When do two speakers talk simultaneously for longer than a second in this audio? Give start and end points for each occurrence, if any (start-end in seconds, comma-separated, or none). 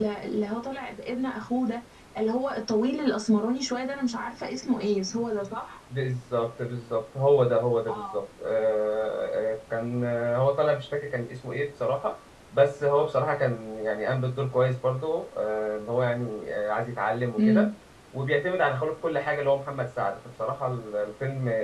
none